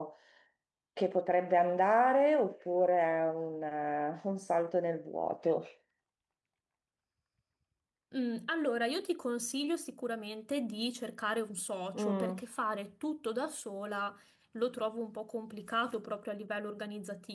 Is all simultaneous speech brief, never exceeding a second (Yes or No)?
Yes